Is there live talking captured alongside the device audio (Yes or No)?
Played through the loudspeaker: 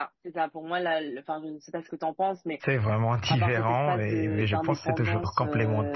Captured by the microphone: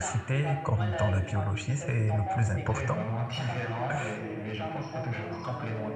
Yes